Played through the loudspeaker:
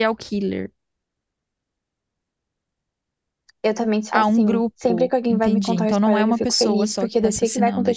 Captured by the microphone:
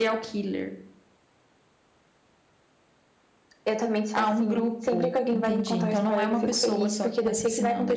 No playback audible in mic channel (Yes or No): No